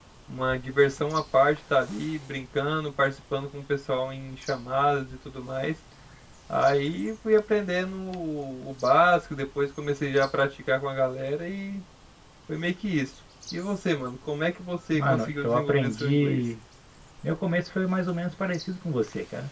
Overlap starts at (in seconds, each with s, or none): 14.9 s